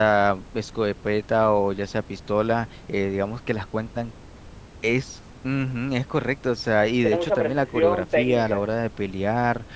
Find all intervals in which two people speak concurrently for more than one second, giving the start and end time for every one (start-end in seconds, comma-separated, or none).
7.0-8.6